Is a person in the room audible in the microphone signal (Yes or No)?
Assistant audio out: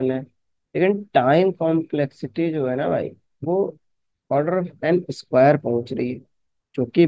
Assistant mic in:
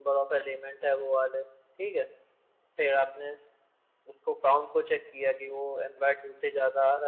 Yes